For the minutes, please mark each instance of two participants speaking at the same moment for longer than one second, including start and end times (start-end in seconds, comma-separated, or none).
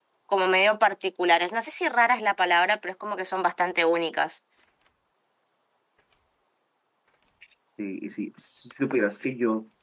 none